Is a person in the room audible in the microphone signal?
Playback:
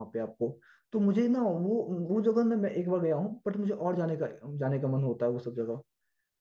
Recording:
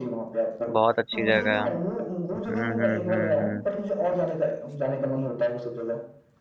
Yes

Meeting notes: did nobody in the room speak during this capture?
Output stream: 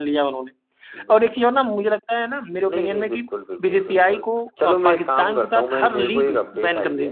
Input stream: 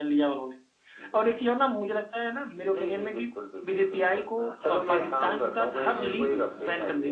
No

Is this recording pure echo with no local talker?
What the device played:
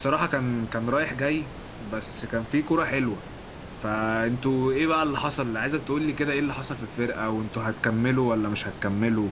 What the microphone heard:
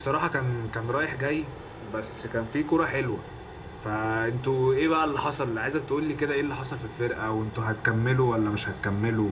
Yes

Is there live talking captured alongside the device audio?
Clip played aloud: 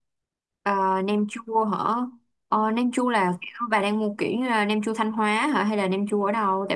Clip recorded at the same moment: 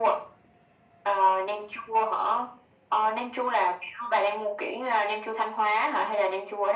No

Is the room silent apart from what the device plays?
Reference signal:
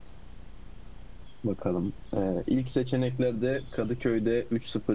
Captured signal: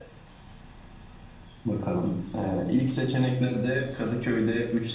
Yes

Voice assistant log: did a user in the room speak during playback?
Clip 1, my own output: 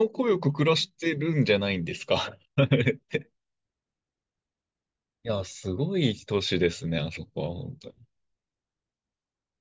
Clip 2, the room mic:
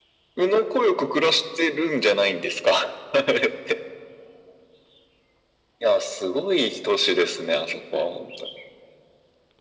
No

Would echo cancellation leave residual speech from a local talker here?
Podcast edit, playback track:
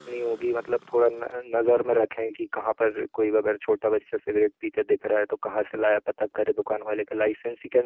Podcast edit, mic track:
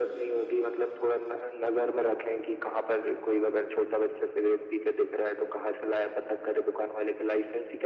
No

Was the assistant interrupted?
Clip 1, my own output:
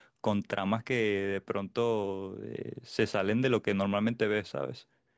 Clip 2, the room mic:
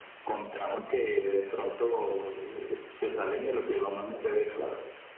No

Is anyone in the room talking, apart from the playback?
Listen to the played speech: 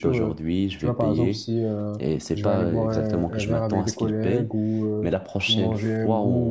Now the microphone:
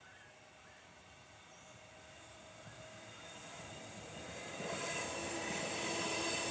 No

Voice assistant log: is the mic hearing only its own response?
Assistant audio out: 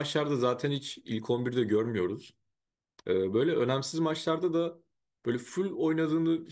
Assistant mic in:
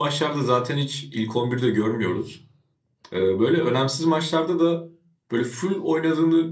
Yes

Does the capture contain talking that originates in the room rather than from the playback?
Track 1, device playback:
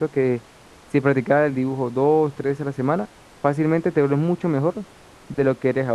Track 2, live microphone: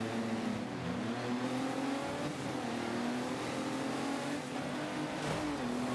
No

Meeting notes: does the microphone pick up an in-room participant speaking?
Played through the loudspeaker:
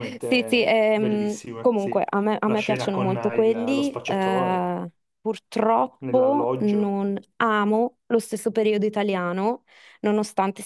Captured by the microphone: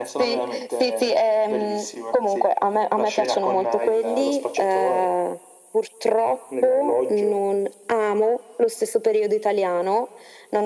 No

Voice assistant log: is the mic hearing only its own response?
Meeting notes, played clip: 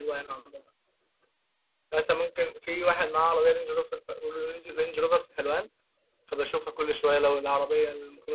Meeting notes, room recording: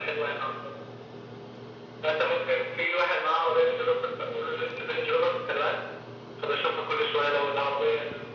Yes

